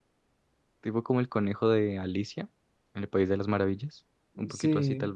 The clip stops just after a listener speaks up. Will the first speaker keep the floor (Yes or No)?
No